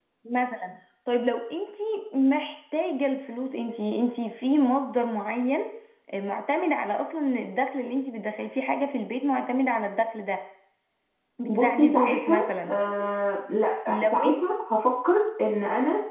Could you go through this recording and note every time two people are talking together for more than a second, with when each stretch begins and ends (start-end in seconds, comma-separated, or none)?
11.5-12.8